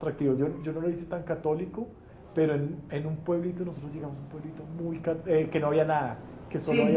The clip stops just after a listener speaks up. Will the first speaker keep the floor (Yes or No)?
Yes